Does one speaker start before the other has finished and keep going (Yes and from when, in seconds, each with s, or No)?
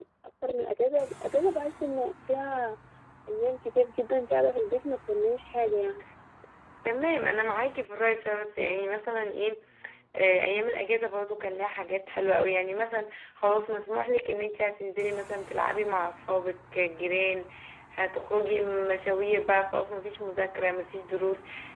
No